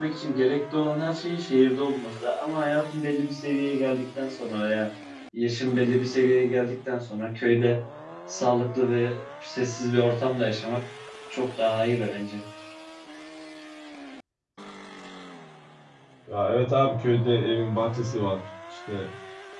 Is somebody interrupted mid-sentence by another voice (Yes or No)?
No